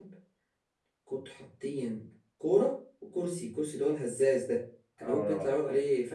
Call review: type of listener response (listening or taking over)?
listening